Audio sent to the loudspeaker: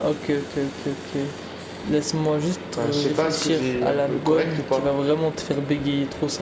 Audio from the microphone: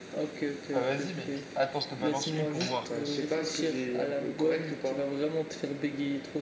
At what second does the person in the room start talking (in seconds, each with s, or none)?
0.7 s